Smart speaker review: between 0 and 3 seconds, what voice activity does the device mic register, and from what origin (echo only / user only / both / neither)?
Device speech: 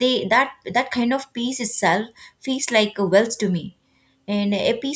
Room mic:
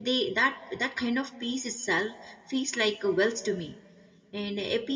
echo only